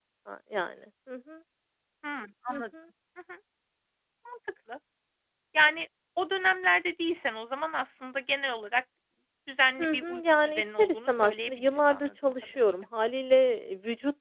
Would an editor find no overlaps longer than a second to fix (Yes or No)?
No